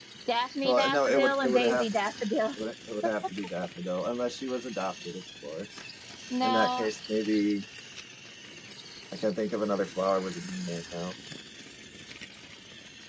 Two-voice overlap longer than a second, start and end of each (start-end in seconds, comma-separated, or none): 0.6-1.9